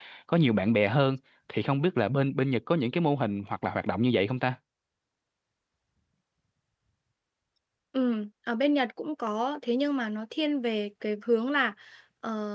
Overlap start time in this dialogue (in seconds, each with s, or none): none